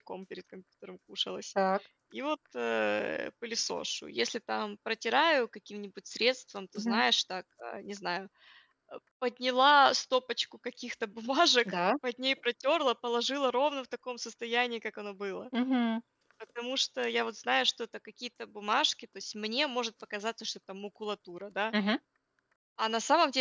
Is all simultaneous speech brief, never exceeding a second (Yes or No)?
Yes